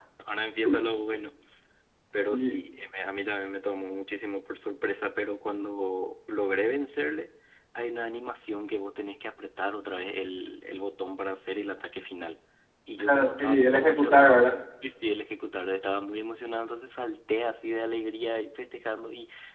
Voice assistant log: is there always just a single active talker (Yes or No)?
No